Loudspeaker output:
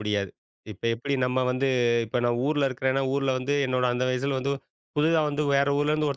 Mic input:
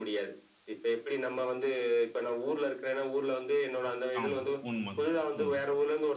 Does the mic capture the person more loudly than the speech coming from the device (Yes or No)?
No